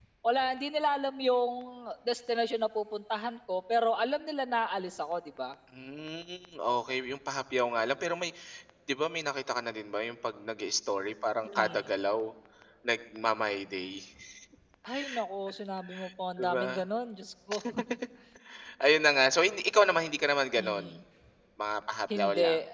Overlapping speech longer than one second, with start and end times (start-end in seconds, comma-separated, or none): none